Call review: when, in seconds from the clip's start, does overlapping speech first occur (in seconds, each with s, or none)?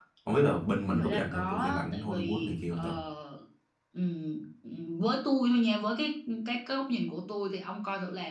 0.9 s